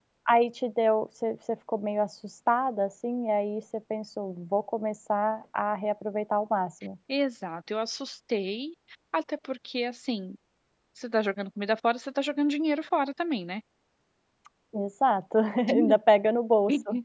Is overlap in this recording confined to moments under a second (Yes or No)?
Yes